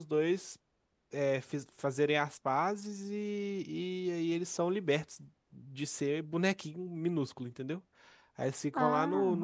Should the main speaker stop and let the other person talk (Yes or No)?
No